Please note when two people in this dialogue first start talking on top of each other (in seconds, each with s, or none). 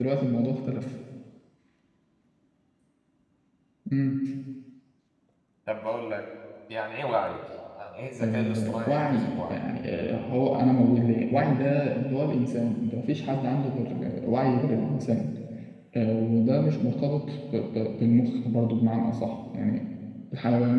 8.2 s